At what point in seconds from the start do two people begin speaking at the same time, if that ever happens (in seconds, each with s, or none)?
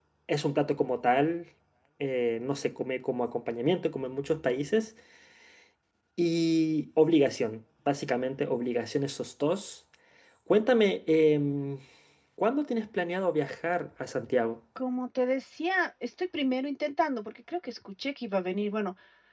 none